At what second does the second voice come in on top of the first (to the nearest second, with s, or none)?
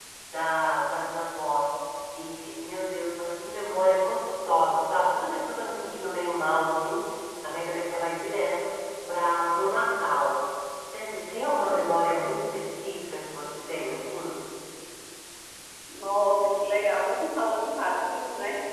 none